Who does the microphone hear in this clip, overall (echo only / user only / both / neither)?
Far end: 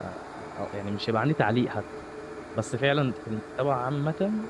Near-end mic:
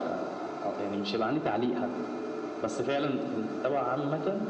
echo only